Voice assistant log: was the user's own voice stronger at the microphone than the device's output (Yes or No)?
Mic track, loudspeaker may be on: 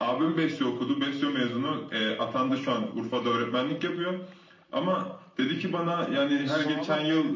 No